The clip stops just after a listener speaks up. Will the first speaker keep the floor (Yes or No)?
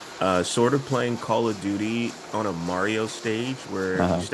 Yes